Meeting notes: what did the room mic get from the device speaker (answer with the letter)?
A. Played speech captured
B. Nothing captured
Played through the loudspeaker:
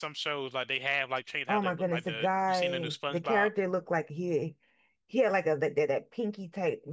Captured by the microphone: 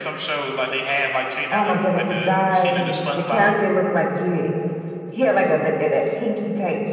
A